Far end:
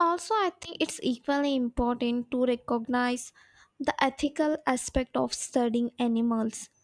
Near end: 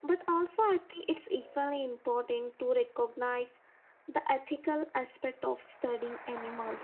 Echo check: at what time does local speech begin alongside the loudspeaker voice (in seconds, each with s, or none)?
none